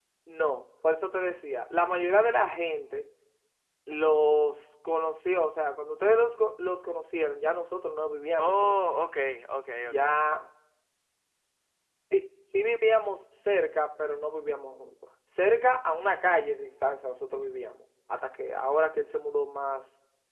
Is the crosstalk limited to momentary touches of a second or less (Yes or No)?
Yes